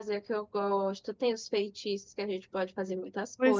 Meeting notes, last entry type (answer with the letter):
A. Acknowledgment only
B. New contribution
B